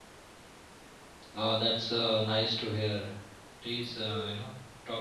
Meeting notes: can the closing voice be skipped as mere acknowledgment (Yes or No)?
Yes